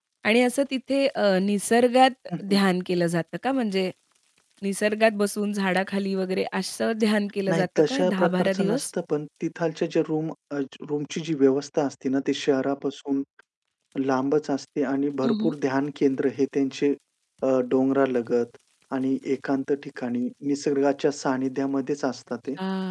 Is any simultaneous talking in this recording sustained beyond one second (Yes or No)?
Yes